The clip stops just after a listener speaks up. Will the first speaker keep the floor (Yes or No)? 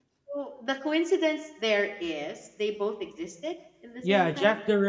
No